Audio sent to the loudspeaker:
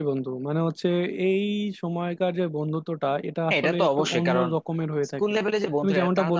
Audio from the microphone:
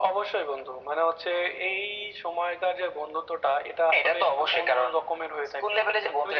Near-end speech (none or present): none